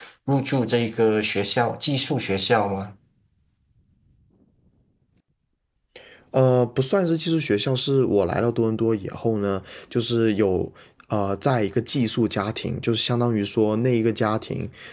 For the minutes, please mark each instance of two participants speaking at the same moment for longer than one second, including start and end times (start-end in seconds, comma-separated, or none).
none